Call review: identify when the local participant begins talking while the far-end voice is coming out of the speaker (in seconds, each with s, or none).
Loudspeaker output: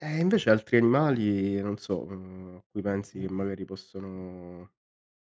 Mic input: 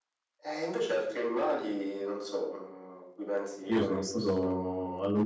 3.7 s